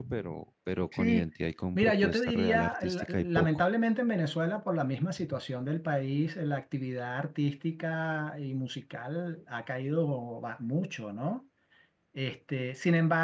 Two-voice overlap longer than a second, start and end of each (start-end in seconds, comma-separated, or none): 1.8-3.6